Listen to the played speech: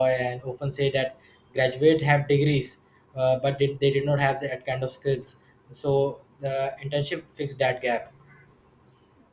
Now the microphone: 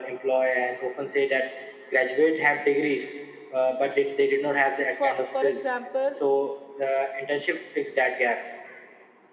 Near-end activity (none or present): present